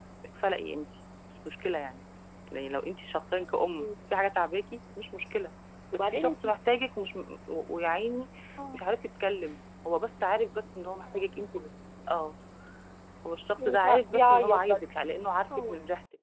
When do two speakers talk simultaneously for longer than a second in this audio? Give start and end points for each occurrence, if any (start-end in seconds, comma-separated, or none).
13.6-14.8